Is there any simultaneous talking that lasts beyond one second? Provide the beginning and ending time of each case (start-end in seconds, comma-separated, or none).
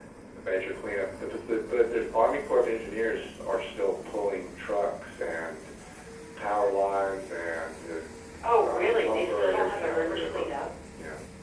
8.6-10.5